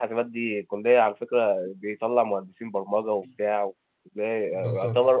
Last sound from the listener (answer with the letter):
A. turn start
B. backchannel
A